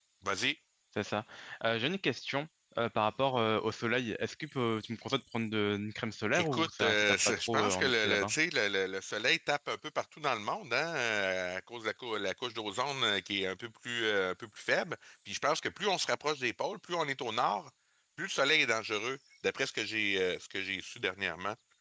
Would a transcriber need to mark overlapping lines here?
Yes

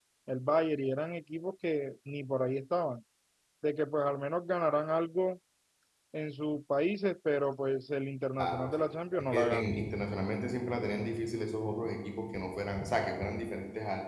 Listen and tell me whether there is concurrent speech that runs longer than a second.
Yes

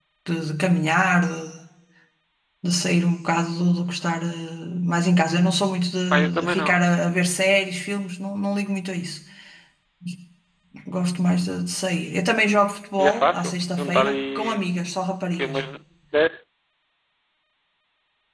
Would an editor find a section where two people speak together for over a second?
Yes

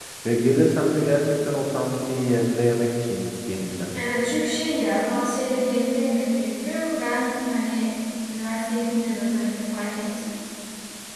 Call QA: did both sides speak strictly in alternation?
Yes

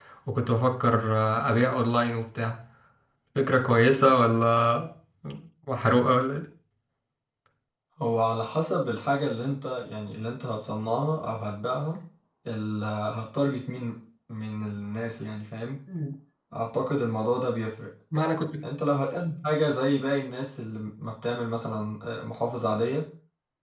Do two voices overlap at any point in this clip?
No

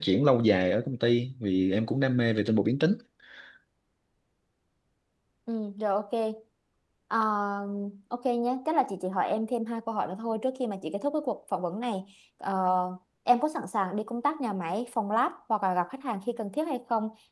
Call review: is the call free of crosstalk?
Yes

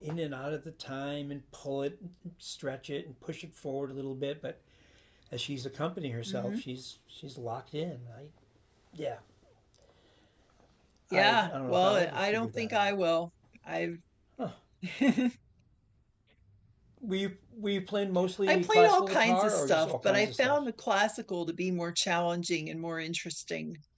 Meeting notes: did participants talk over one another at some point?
Yes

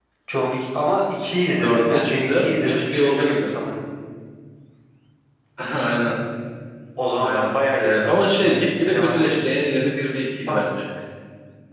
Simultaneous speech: Yes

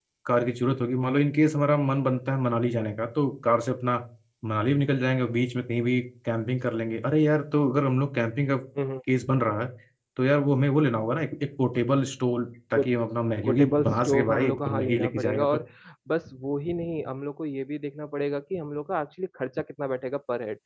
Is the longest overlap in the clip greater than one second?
Yes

